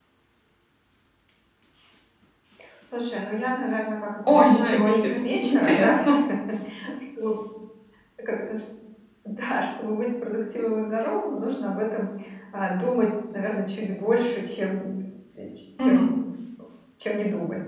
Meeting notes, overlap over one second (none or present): present